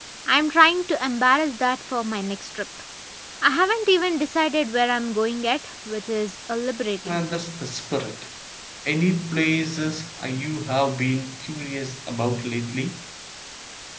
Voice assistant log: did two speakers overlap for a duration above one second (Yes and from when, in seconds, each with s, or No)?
No